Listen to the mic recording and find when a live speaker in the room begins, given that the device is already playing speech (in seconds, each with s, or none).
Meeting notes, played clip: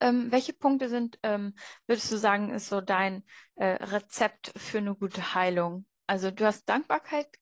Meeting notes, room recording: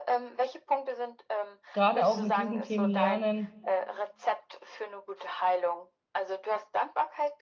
1.7 s